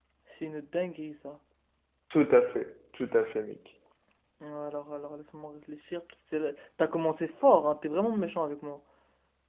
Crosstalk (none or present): none